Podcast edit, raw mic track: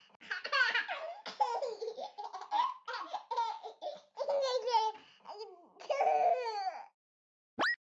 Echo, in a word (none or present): none